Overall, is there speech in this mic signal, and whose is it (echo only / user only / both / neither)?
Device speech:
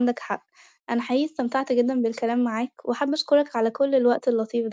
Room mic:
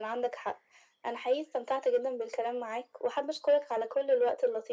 echo only